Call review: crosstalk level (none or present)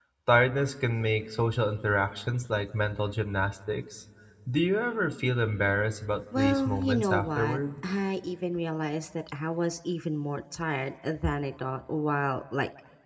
present